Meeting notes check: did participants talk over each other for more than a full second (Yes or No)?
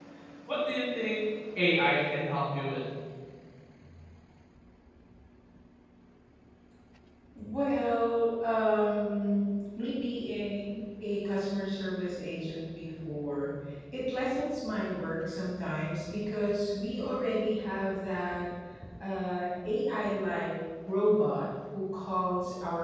No